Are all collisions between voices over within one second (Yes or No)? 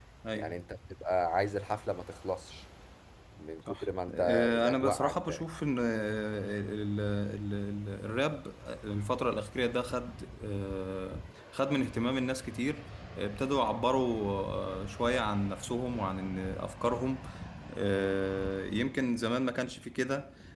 No